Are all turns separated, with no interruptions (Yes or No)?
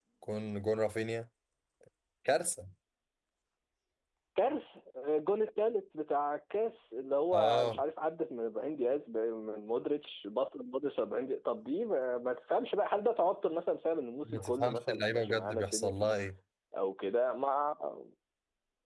No